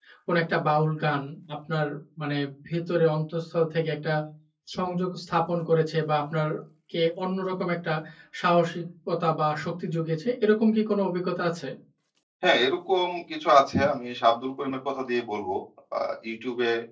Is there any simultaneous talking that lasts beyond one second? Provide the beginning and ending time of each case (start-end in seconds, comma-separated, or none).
none